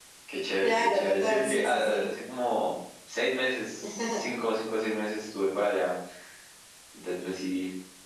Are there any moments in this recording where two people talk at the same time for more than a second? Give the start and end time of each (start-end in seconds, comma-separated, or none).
0.6-2.0